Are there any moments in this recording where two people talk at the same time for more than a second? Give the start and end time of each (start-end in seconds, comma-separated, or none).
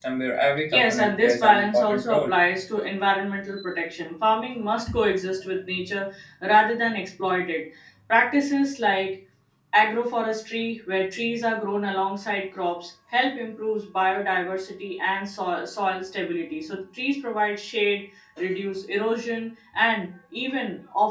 0.7-2.3